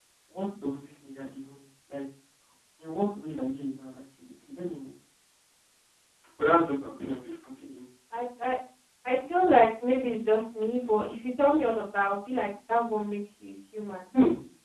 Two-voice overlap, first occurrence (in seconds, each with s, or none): none